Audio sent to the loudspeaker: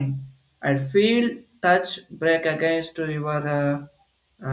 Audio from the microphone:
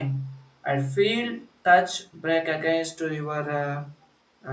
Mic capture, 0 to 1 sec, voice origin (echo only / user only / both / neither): echo only